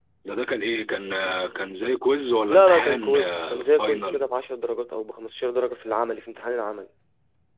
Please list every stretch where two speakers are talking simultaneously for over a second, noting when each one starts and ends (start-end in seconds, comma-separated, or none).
2.5-4.3